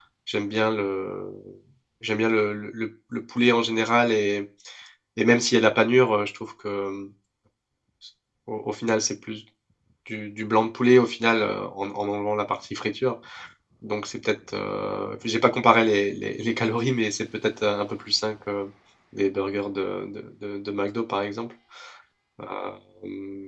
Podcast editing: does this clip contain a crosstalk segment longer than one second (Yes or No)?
No